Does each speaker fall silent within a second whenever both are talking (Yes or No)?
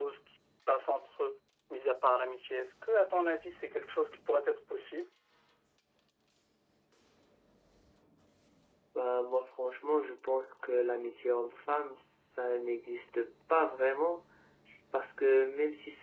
Yes